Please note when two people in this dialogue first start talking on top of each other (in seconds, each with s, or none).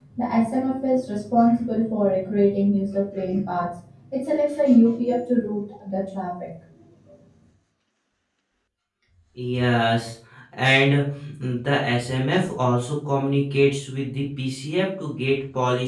none